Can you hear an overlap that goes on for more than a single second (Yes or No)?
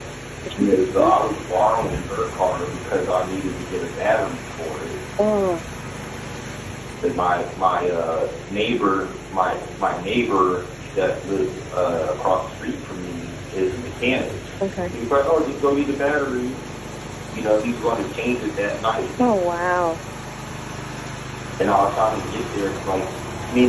No